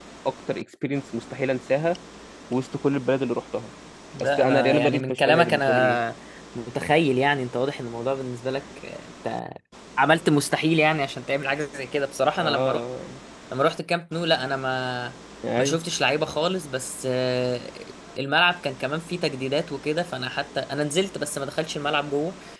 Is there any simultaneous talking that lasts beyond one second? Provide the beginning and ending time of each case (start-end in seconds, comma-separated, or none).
4.2-6.0